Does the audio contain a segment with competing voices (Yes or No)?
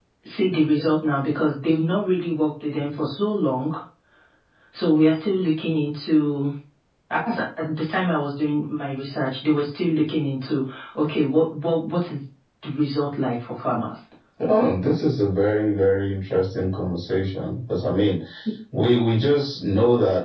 No